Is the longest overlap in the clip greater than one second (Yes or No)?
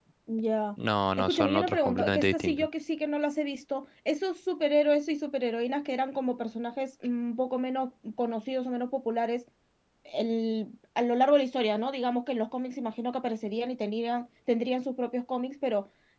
Yes